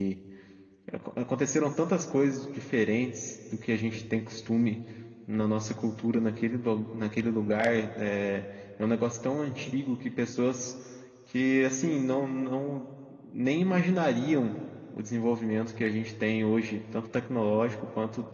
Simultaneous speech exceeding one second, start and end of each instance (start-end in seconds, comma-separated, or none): none